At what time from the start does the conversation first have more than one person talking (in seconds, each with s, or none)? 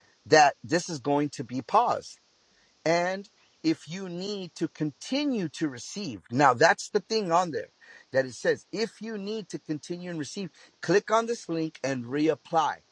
none